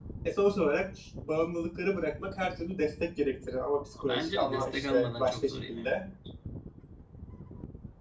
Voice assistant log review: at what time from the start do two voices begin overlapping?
4.0 s

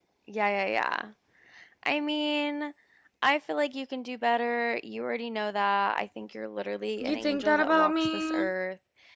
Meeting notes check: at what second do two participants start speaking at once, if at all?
7.0 s

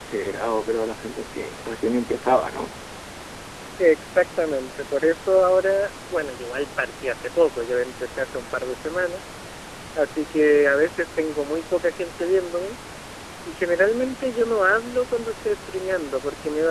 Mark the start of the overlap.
none

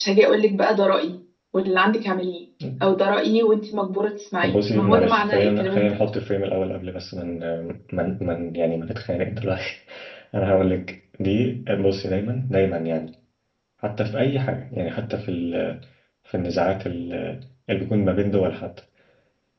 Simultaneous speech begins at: 4.4 s

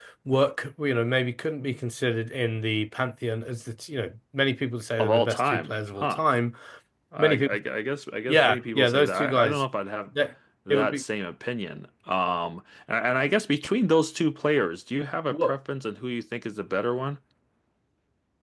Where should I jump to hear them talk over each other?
5.0 s

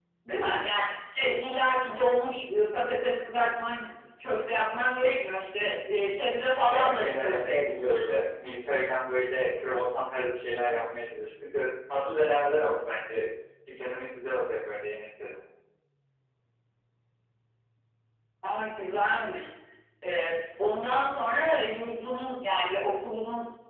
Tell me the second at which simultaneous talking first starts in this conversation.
6.7 s

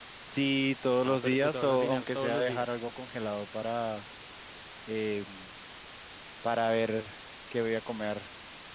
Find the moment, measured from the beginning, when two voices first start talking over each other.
1.0 s

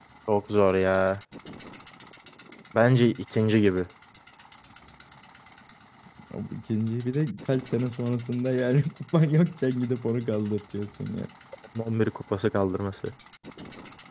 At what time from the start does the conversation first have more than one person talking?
none

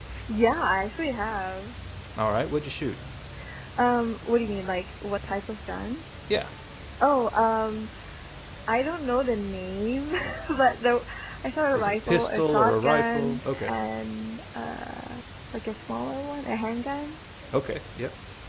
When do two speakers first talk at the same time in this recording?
11.7 s

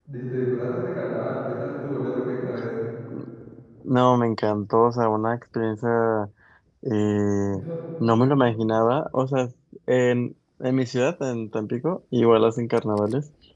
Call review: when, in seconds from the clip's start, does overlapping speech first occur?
none

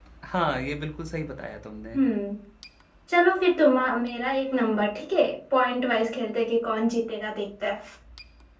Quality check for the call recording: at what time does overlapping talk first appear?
none

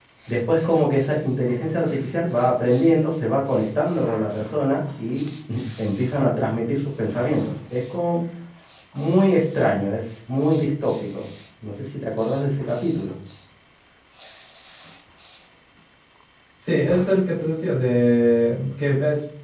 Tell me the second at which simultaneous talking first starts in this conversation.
none

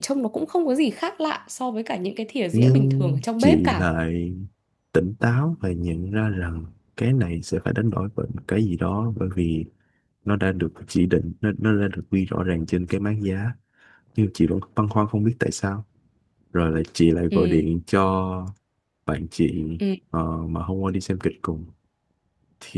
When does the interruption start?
2.5 s

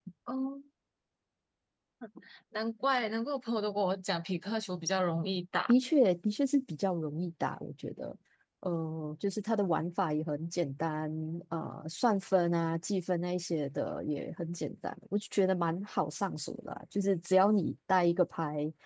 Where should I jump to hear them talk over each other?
none

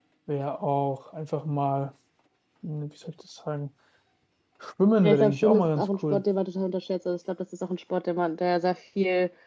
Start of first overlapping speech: 5.0 s

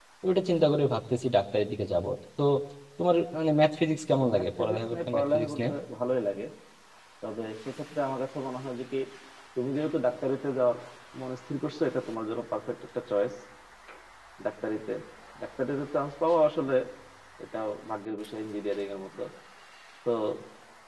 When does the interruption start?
4.1 s

